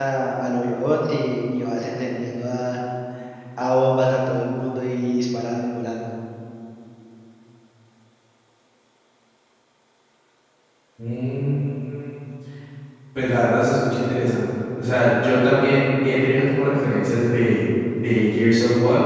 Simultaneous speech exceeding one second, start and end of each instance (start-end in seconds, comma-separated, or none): none